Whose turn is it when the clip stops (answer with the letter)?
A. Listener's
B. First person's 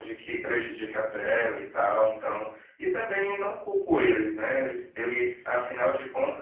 B